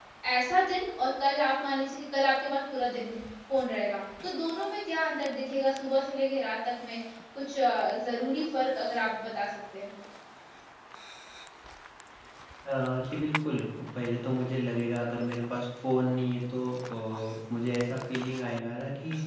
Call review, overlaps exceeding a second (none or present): none